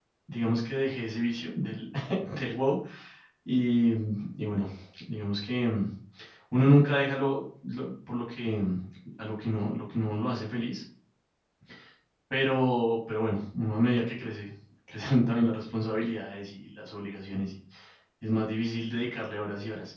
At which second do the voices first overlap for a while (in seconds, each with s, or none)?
none